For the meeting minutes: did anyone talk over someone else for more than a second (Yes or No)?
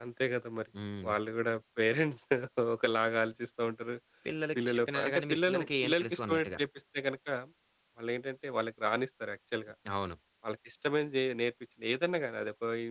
Yes